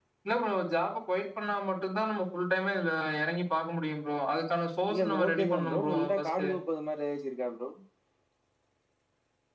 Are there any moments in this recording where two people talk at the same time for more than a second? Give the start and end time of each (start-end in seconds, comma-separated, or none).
4.9-6.5